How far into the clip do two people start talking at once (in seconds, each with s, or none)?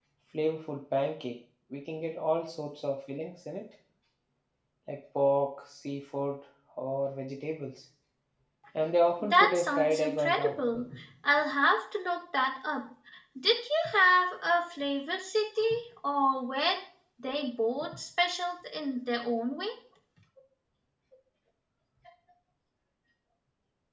9.2 s